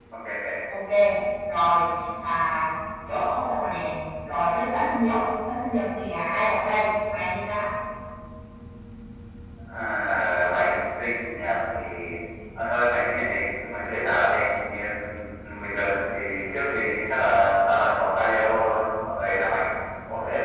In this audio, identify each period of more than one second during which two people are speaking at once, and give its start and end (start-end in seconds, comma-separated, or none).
none